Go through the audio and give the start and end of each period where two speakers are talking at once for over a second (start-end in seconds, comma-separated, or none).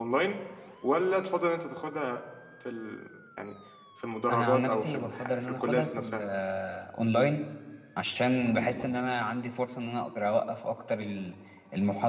4.3-6.3